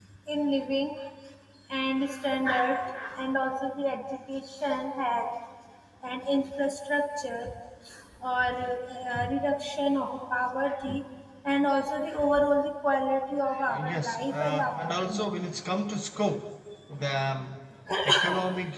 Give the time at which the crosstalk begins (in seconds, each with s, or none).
13.7 s